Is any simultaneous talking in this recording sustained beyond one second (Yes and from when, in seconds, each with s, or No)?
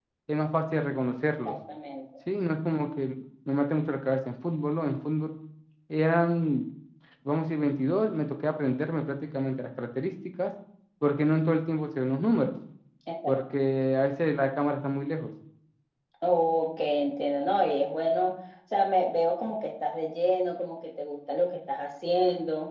No